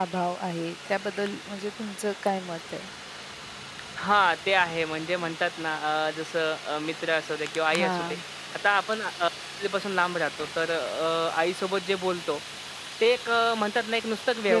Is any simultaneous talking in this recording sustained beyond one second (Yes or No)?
No